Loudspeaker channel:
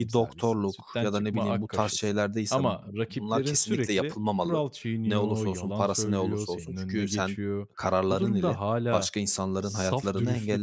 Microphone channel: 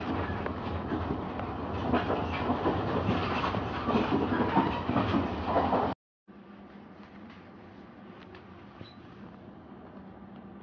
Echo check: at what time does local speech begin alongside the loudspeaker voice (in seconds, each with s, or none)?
none